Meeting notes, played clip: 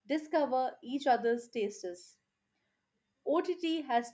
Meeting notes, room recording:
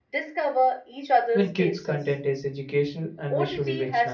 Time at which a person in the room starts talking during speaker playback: 1 s

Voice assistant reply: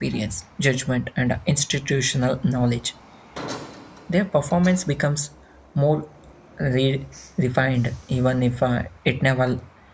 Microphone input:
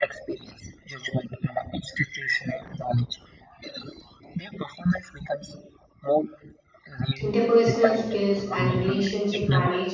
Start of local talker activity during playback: 7 s

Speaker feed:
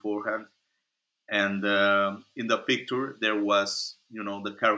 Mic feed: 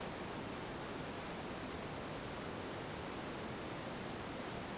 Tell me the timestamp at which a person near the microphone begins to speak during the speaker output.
none

